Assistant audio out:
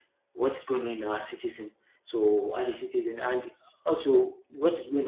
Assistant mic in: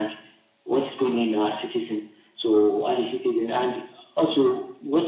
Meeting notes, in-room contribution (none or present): none